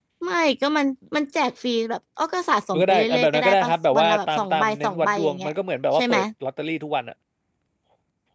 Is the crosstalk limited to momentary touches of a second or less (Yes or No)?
No